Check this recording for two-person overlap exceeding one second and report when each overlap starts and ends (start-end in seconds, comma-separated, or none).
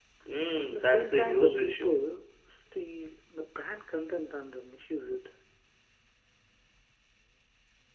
0.7-2.0